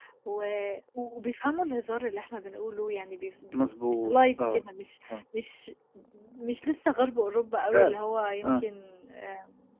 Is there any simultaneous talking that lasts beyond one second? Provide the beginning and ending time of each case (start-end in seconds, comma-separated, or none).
none